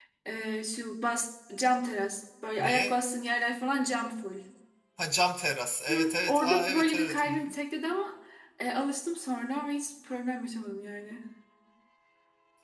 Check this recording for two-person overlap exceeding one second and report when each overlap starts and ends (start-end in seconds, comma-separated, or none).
5.9-7.5